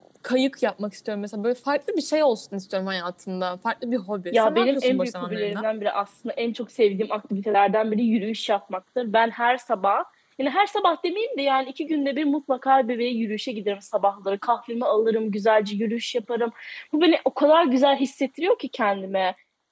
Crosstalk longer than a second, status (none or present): present